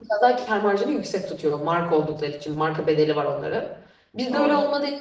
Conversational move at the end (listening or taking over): listening